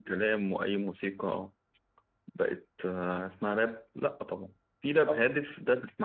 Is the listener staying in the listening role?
Yes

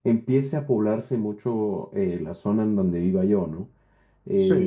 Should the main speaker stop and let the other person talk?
No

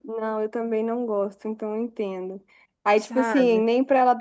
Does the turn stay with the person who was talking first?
Yes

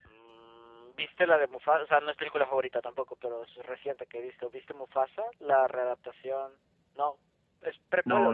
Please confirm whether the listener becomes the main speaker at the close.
Yes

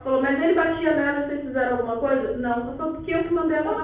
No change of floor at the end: Yes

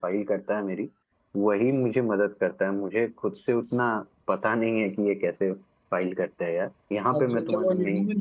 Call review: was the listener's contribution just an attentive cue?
No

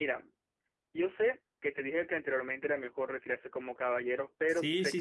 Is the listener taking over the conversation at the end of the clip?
Yes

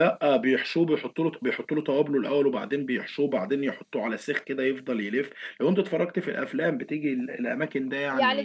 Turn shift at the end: Yes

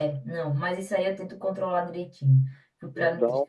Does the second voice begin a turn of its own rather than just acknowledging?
Yes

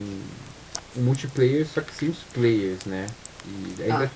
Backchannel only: Yes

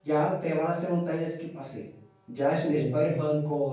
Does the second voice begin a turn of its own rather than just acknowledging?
No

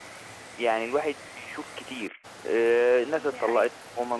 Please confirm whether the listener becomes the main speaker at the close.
No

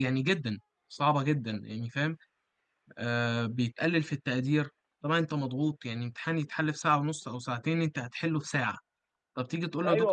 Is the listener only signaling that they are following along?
No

